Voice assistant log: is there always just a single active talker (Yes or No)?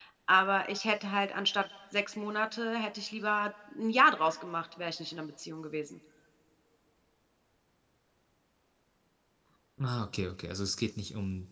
Yes